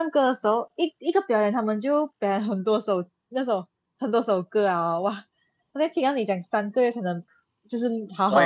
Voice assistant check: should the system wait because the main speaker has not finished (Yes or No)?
Yes